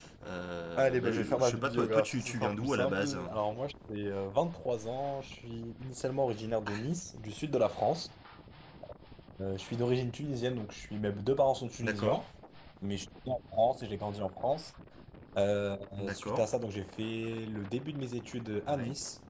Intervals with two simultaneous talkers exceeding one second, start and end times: 0.8-3.2

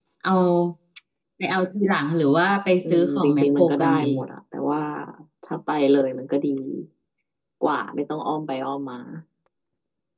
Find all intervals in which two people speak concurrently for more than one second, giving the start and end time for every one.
2.8-4.1

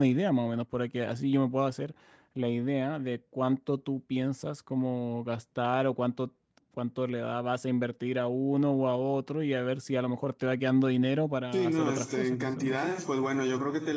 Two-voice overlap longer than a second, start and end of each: 11.5-13.0

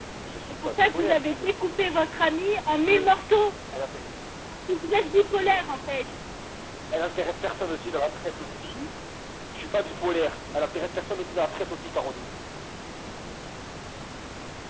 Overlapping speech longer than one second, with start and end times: 0.5-2.1

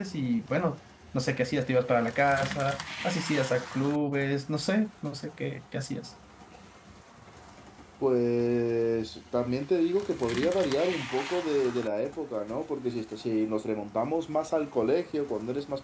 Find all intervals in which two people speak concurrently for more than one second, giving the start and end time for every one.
none

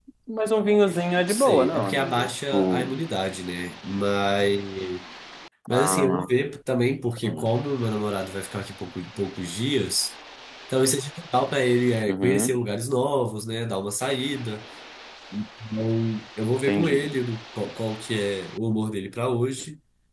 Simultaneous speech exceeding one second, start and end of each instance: 1.3-2.9

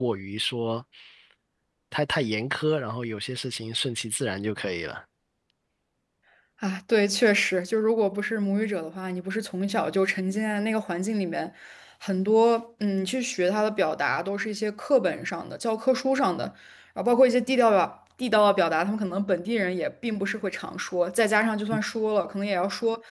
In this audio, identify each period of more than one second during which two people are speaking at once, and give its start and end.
none

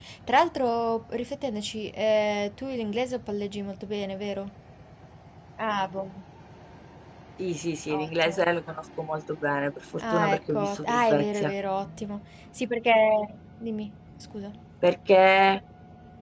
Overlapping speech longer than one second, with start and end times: 10.0-11.5

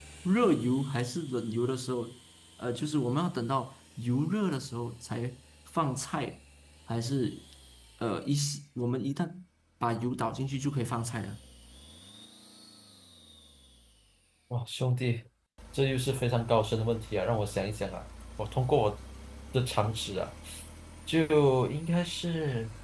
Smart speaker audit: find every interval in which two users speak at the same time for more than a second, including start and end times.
none

